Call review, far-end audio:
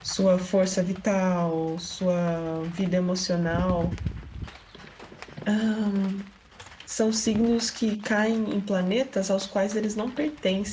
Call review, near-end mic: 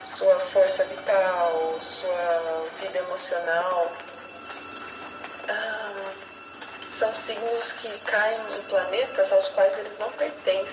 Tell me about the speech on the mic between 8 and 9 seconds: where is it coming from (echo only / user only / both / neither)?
echo only